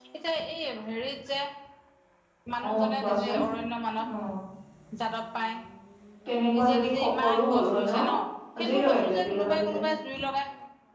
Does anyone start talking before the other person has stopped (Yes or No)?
Yes